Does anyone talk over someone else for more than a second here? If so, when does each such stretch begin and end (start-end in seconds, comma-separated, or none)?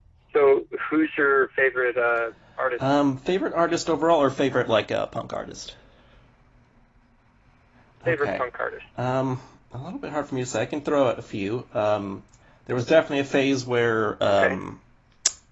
none